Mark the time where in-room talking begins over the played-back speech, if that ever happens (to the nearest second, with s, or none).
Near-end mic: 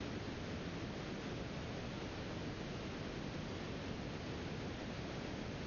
none